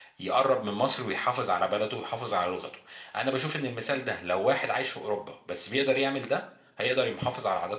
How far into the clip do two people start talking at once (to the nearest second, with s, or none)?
none